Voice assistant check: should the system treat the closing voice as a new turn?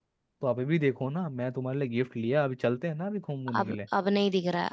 Yes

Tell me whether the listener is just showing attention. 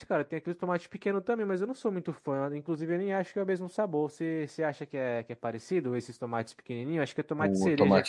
No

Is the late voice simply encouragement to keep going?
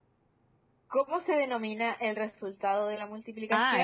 No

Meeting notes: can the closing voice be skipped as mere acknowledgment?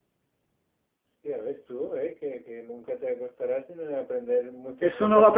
No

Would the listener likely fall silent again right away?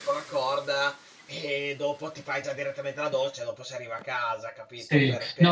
No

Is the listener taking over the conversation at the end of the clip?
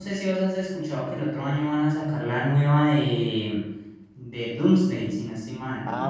Yes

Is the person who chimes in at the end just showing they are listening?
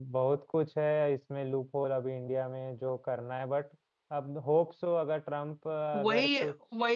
No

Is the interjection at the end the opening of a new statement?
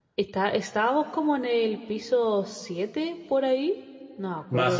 Yes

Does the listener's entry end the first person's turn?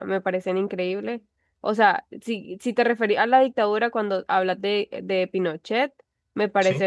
No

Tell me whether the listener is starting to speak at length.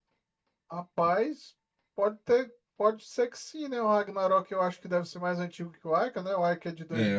Yes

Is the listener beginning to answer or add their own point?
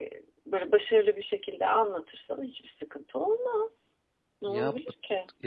Yes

